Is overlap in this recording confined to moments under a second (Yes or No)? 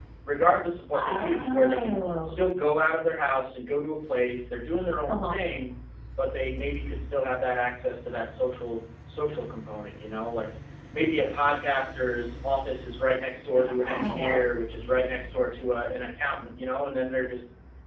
No